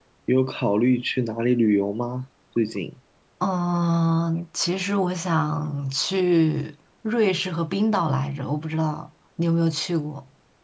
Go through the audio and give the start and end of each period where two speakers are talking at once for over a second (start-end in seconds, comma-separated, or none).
none